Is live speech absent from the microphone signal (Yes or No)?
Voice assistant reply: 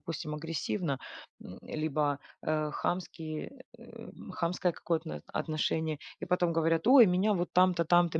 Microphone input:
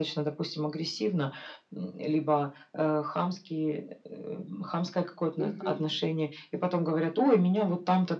No